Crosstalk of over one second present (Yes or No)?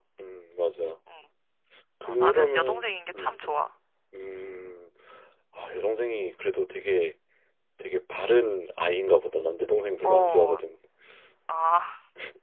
Yes